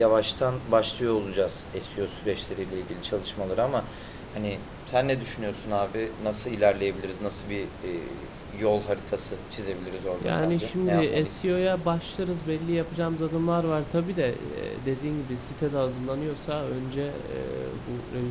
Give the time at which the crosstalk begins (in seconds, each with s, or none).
10.2 s